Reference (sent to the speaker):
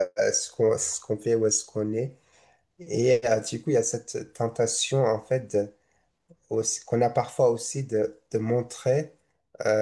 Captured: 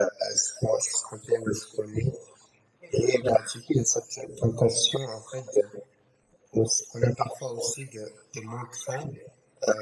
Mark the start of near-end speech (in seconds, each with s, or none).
none